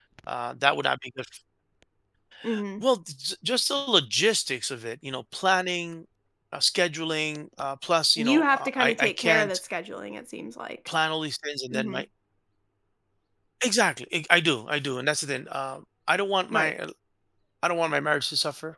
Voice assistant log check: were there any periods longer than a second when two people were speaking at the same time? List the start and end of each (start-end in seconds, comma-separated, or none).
8.2-9.6